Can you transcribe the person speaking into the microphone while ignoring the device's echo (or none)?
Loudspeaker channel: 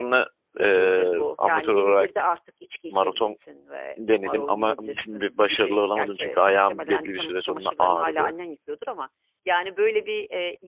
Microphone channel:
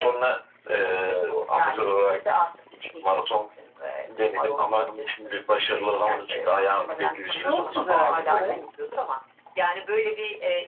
Çok güzel. Evet.